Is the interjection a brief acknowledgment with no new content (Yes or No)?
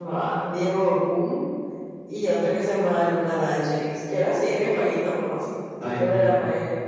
Yes